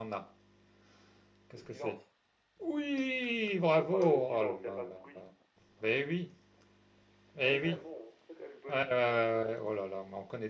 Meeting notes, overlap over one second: present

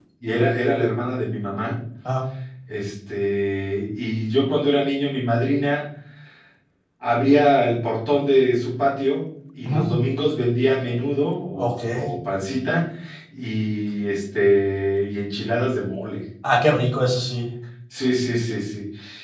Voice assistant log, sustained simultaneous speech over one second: none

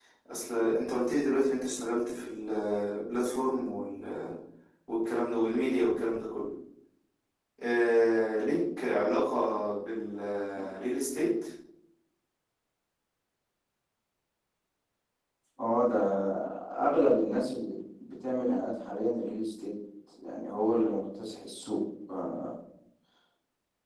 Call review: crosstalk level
none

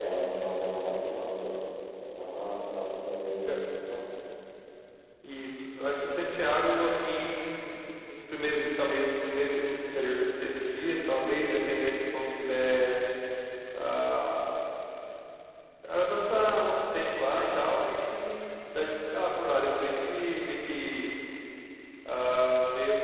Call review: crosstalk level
none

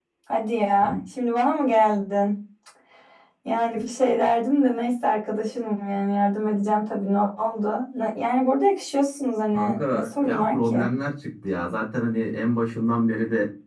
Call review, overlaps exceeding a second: present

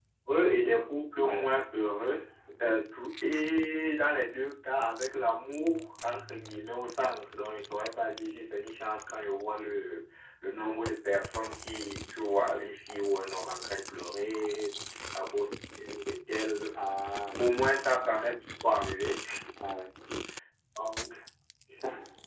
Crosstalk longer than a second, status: none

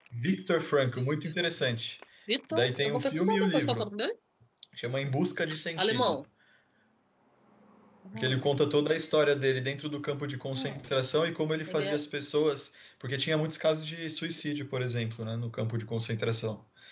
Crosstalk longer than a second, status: present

